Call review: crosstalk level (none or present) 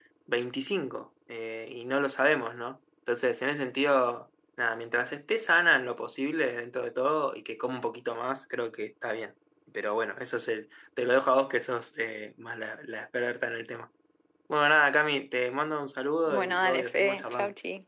present